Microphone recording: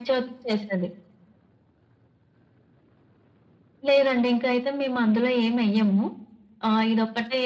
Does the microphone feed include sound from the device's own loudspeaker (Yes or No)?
Yes